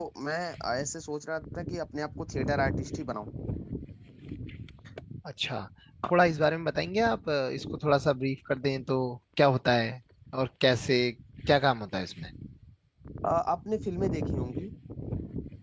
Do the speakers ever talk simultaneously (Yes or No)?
No